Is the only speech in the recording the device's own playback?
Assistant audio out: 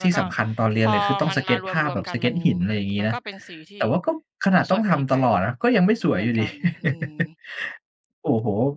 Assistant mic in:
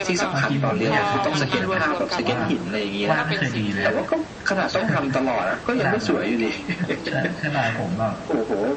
No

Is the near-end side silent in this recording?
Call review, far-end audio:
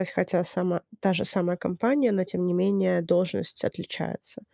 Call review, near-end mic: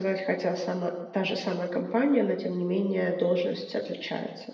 Yes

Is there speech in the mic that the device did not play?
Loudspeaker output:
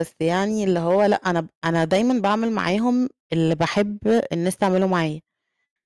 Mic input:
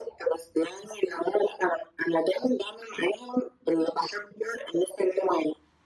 No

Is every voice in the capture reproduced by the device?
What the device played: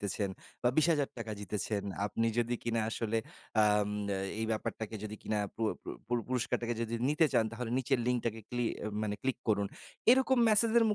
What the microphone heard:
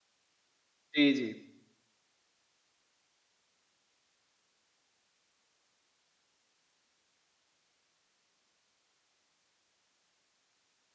No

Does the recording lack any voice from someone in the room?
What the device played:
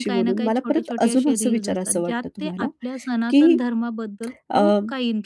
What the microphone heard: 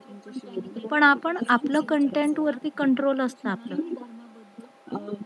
No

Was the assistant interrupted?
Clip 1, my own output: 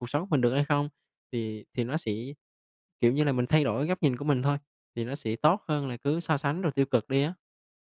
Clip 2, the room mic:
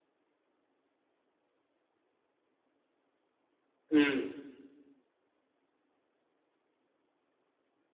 Yes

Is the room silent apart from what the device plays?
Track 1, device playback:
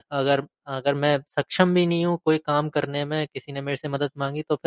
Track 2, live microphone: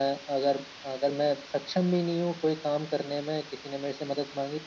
Yes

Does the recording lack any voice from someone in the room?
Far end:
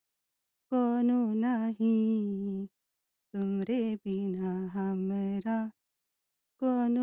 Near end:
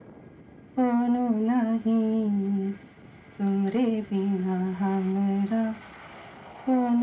Yes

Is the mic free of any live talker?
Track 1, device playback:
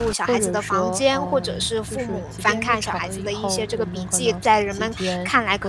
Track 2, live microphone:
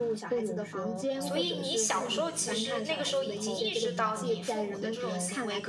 No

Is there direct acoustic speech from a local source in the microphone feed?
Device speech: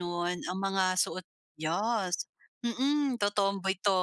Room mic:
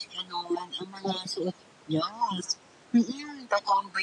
No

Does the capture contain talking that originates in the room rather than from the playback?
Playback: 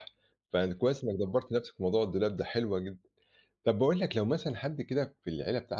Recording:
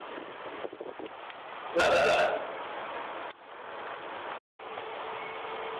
Yes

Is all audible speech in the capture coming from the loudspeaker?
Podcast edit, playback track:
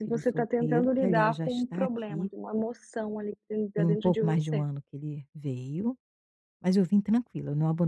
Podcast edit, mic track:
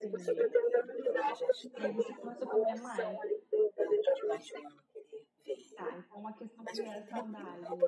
No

